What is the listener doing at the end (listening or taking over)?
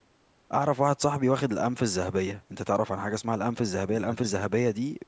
listening